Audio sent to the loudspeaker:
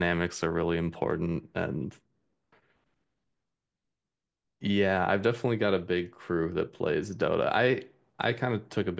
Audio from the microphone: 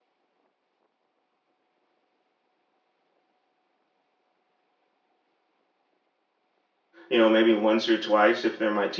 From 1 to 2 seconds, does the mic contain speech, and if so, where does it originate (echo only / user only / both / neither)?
neither